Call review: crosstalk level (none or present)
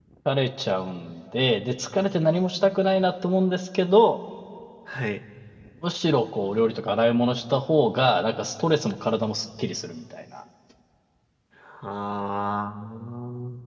none